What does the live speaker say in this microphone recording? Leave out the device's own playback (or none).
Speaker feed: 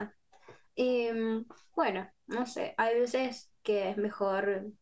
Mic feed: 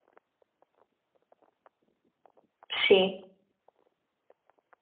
Sí,